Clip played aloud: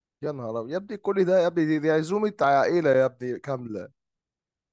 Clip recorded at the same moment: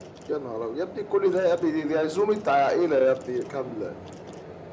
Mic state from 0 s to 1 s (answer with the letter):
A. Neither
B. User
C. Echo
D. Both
C